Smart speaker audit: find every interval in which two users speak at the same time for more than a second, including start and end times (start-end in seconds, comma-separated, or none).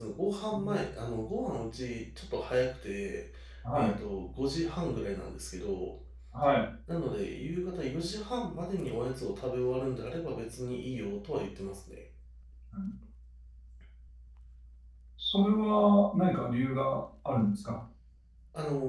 none